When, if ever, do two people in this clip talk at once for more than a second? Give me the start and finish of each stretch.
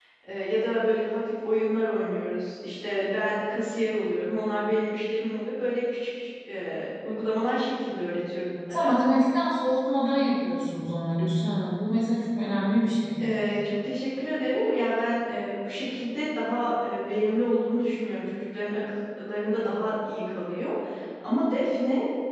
none

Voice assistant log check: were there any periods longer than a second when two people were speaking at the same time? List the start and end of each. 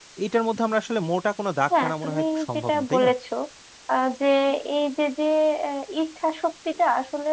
1.7-3.1

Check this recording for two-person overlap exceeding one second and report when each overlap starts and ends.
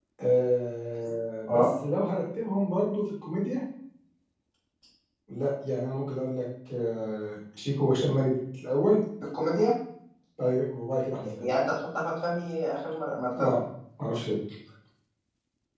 none

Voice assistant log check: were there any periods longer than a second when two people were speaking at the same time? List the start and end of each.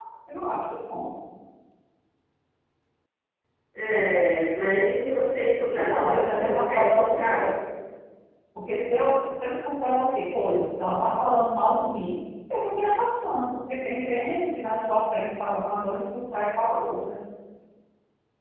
5.7-7.4

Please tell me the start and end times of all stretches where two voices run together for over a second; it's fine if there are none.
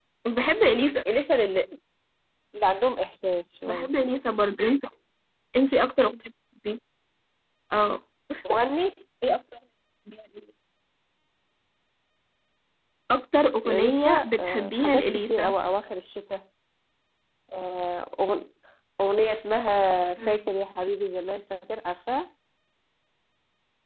13.7-15.5

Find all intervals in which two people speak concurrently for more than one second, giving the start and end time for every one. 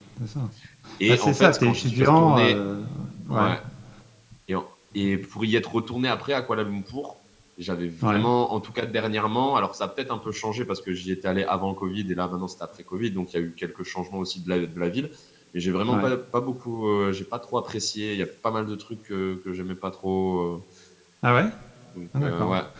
1.1-2.6

